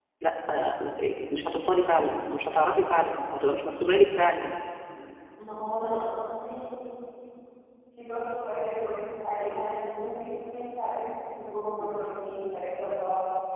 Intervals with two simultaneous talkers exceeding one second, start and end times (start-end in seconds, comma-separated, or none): none